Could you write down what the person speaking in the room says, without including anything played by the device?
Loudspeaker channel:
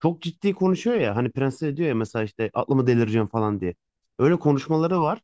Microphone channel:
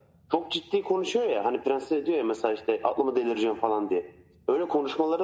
none

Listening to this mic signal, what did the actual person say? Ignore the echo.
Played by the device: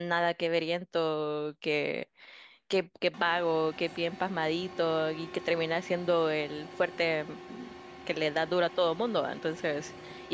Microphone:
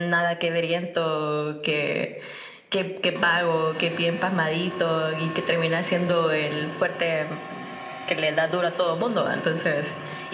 none

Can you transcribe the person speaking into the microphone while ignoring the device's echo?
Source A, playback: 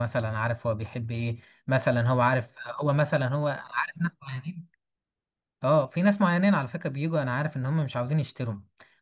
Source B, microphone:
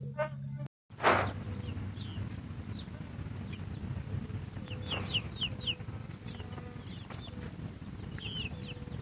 none

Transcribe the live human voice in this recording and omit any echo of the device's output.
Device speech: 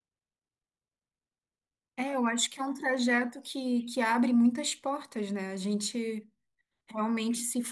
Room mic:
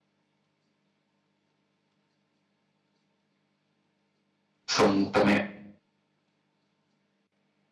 são também

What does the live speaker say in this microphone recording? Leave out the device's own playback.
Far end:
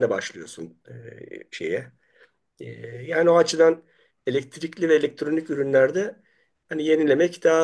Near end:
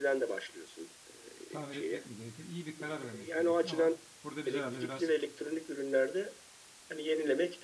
tamir etmek mi gerekir? İyi bir karar vermek gerekiyor ama burada biz herhalde biraz

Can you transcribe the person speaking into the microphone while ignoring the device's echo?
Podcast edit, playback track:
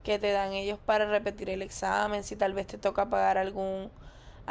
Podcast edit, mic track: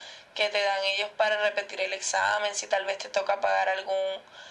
none

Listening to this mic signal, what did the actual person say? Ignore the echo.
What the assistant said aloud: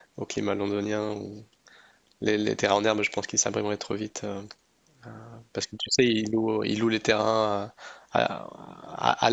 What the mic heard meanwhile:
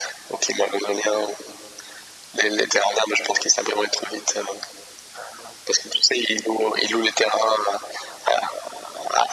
none

